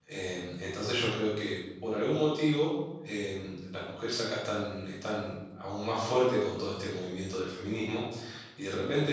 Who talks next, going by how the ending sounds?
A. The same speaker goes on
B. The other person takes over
A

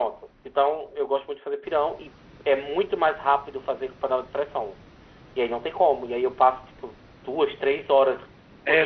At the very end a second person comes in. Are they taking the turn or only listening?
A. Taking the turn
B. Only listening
A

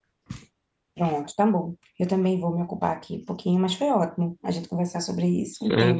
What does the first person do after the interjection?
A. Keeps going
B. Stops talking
B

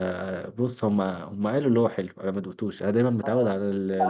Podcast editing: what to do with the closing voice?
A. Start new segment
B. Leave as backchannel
A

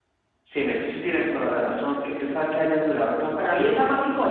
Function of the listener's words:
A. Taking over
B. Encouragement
A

